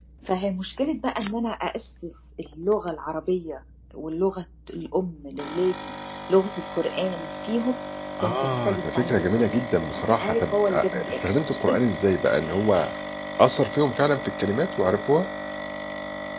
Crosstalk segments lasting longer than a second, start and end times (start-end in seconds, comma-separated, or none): 8.2-11.4